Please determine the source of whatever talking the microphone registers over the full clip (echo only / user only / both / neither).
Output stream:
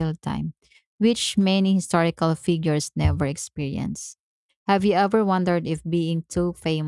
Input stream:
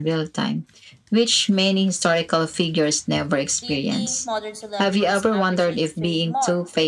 both